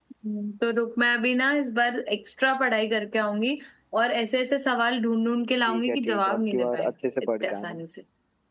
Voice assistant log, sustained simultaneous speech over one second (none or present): present